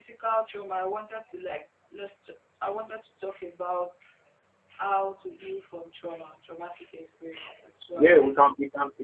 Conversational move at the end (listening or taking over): taking over